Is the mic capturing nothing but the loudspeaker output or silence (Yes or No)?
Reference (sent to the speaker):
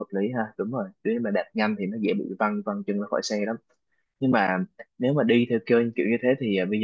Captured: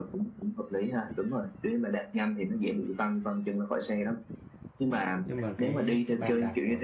No